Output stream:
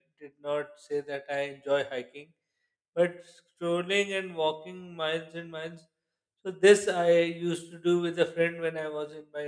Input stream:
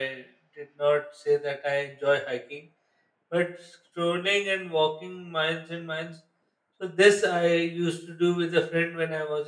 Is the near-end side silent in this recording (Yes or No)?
Yes